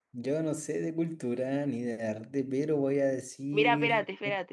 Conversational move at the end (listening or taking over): taking over